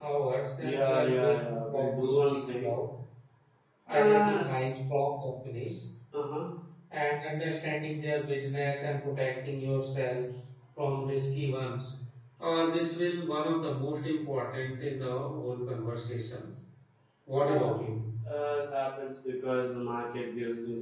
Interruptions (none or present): present